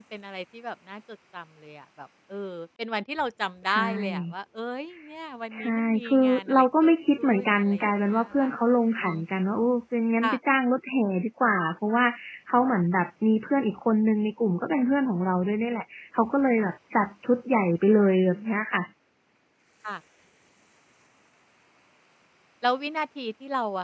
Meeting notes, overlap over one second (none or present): present